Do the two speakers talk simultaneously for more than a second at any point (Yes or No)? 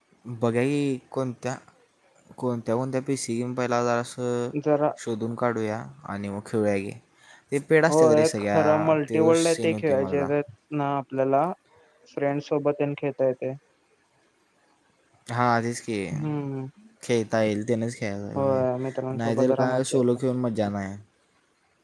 Yes